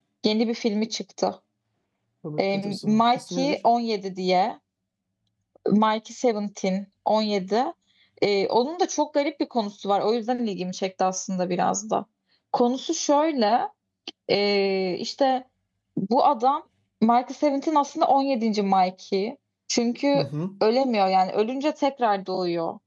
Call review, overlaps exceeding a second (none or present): present